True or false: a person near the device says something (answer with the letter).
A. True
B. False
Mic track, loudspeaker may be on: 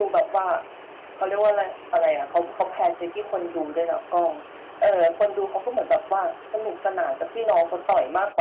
B